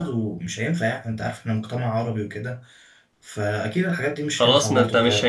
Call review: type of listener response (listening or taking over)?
taking over